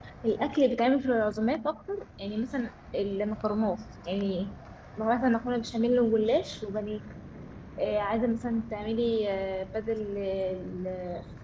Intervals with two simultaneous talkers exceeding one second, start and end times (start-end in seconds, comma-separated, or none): none